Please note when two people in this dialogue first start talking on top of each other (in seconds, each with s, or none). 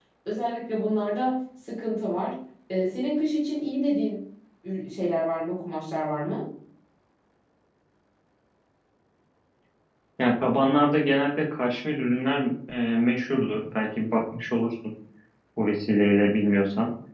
none